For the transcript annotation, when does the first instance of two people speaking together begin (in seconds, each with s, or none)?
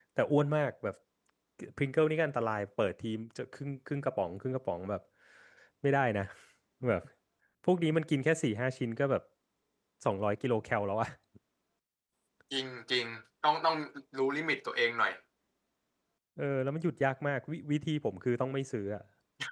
none